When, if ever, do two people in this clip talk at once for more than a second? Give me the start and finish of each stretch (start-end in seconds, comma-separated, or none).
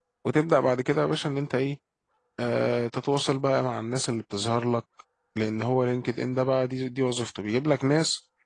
none